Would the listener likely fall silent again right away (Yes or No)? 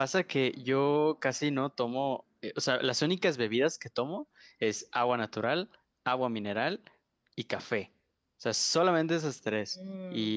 Yes